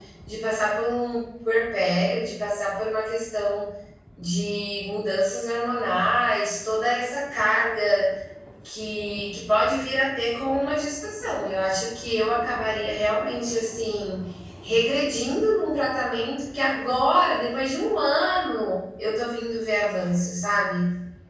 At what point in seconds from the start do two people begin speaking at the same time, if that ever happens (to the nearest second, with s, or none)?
none